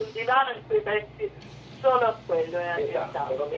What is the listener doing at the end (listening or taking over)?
taking over